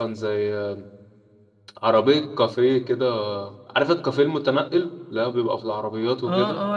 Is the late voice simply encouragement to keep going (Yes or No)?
No